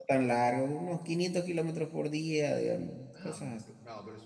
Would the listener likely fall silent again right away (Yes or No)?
No